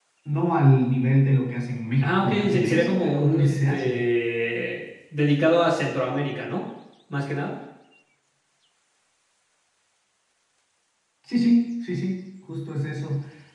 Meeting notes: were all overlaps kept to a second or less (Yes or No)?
No